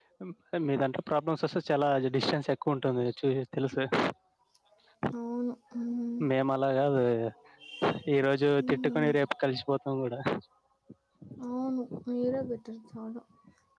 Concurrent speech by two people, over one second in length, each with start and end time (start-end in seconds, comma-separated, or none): none